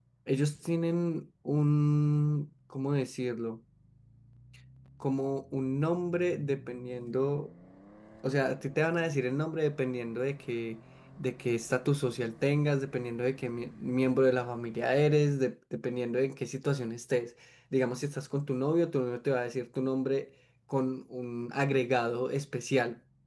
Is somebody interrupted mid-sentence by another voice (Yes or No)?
No